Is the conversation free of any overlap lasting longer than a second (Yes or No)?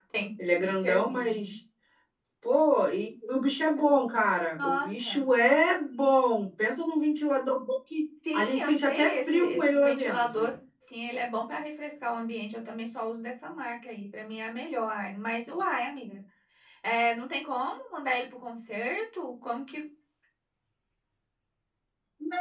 No